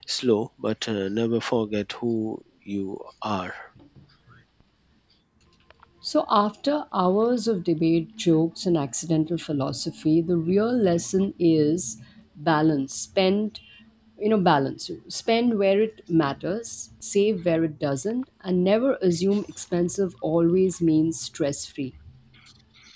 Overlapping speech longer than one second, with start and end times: none

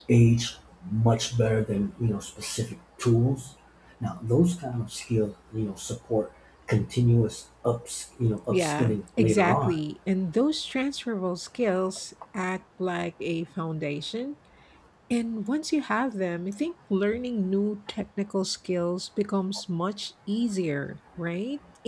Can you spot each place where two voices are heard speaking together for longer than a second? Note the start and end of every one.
8.5-9.8

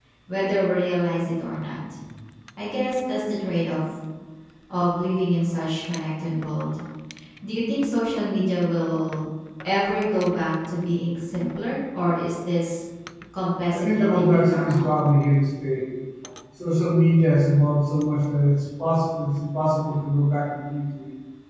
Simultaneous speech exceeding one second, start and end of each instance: 13.7-14.9

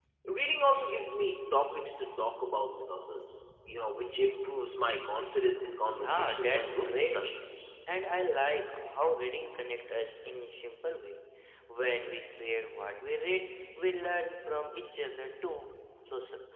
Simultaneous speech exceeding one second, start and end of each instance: 5.9-7.2

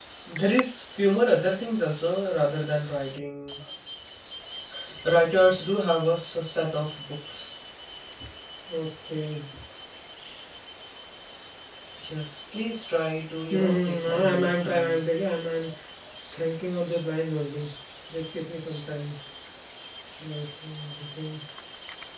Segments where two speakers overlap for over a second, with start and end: 13.5-15.0

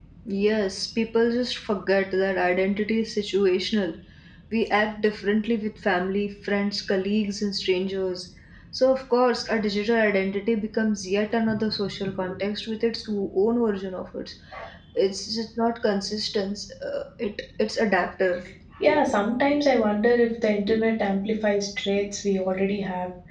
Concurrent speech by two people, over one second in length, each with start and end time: none

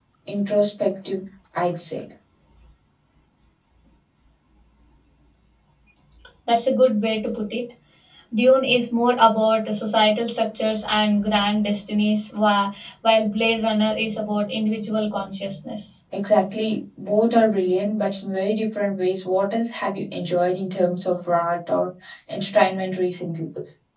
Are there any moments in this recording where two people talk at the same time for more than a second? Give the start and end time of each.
none

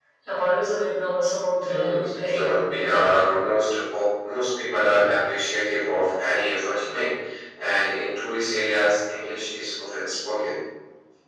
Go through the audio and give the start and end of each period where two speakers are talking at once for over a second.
1.6-3.3

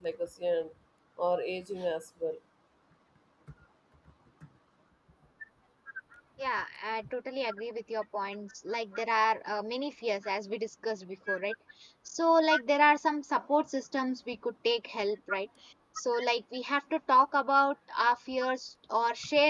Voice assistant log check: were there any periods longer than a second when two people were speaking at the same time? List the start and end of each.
none

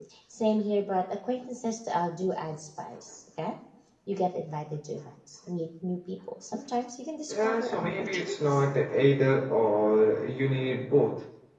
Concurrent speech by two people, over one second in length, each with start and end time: 7.3-8.7

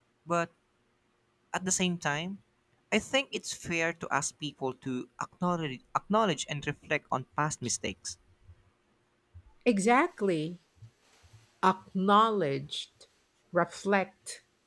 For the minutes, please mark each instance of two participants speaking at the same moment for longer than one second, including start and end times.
none

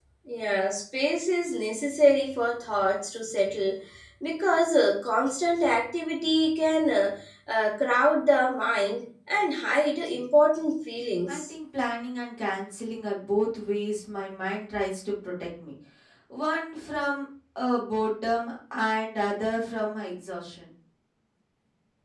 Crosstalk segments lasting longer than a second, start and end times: none

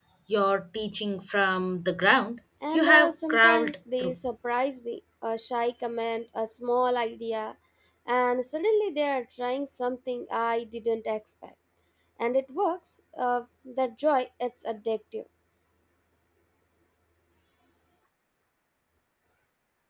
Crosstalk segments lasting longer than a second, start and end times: 2.7-4.2

